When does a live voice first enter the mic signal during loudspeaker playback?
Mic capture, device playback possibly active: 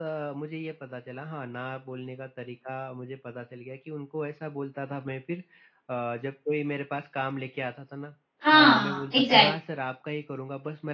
8.4 s

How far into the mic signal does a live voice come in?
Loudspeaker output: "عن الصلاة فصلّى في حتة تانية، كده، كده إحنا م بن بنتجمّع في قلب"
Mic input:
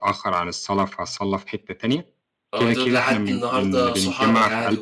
2.5 s

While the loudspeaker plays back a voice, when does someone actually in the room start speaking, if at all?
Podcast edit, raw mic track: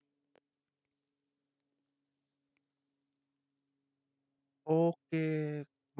4.7 s

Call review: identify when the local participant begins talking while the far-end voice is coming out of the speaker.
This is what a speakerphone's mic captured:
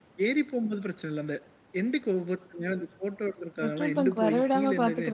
3.6 s

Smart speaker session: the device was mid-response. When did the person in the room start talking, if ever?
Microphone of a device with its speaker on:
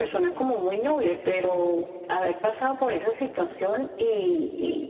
none

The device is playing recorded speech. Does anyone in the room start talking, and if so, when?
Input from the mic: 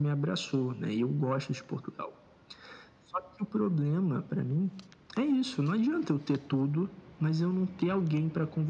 none

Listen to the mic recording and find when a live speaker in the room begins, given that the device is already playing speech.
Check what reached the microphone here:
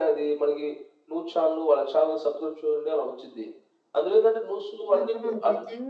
5.0 s

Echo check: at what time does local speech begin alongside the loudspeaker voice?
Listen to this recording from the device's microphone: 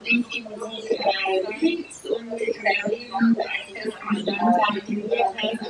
none

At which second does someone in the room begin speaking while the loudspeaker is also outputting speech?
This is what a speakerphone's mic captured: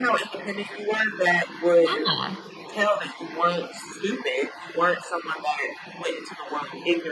1.8 s

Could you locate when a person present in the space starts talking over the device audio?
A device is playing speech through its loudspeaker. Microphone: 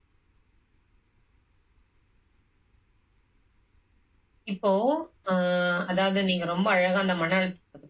4.5 s

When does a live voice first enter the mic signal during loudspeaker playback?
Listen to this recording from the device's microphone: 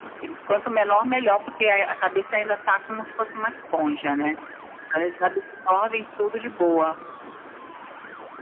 none

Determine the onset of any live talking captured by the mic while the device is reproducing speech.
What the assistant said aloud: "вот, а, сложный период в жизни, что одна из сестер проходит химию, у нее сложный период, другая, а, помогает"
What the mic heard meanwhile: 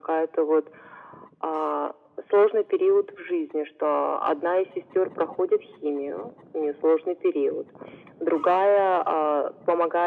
none

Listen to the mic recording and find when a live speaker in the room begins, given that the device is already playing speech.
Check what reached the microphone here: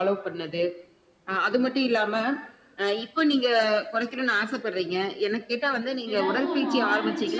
6.1 s

